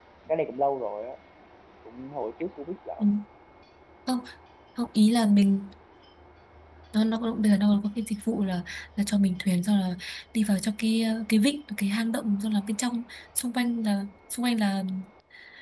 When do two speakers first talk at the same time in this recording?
none

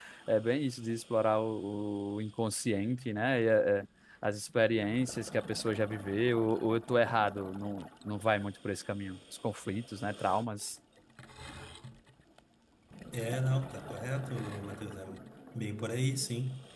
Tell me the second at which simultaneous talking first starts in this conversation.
none

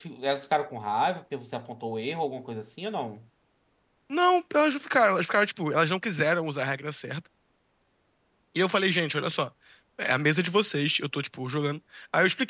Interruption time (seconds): none

